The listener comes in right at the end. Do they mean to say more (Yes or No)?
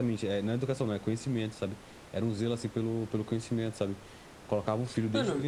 No